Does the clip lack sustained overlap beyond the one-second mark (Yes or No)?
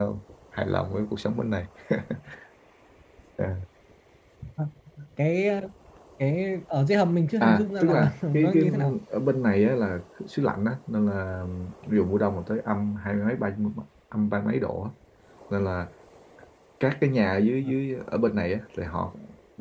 No